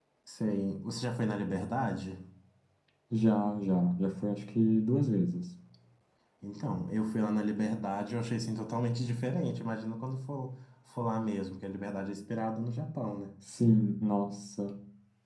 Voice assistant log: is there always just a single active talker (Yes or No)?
Yes